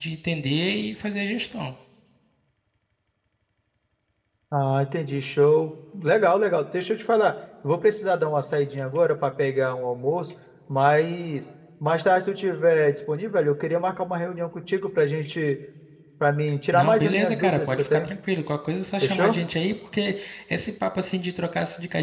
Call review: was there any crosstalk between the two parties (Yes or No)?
Yes